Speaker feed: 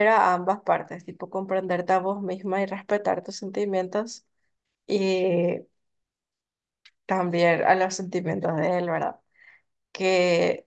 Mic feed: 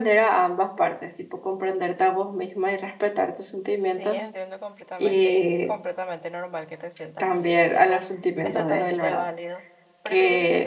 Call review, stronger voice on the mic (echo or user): echo